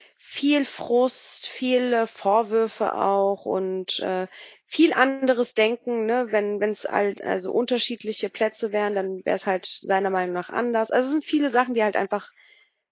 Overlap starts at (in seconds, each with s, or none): none